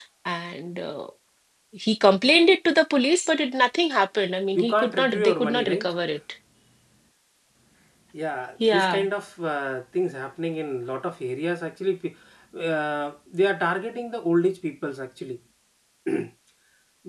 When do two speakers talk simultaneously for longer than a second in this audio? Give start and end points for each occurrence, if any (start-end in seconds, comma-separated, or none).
4.5-5.9